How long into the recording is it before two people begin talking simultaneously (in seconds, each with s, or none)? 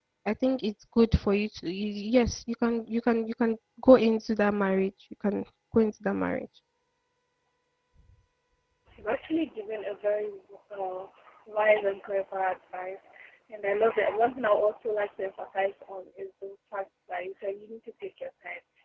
none